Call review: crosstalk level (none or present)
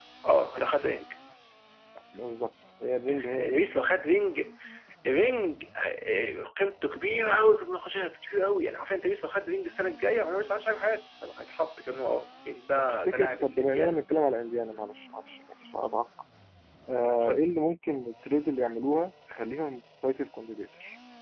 present